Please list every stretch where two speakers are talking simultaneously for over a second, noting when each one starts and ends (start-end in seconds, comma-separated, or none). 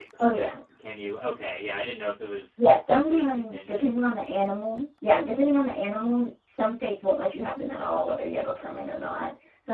2.6-3.9